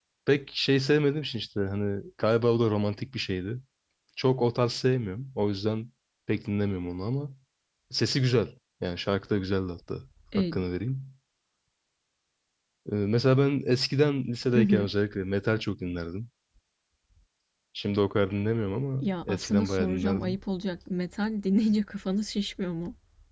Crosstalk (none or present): present